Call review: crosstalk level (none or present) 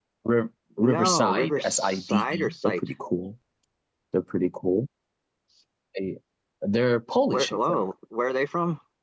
present